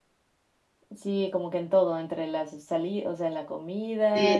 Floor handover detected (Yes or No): Yes